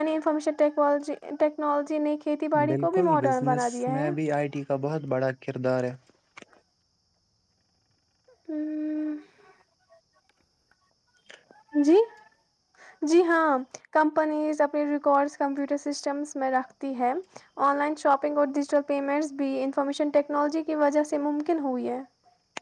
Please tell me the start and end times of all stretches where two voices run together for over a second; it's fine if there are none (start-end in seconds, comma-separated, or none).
2.7-4.2